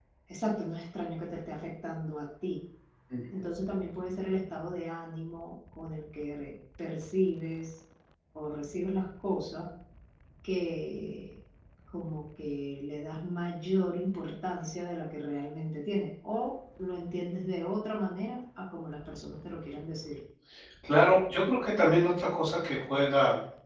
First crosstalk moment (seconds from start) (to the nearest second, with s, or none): none